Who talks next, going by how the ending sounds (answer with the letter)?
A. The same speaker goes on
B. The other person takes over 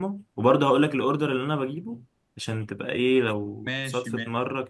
A